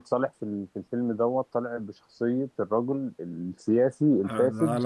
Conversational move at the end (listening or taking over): taking over